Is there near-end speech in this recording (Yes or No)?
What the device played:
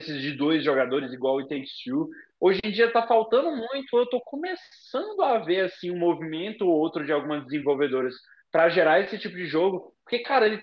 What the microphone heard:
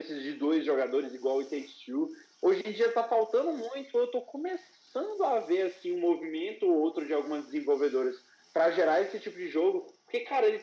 No